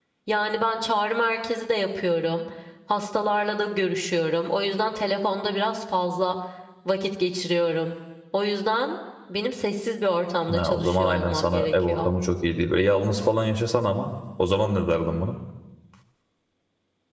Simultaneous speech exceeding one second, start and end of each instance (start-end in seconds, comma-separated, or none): 10.5-12.1